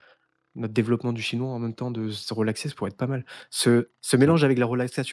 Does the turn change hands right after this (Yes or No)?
No